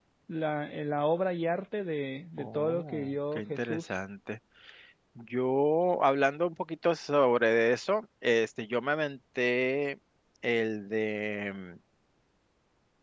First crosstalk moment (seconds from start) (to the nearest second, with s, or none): 2 s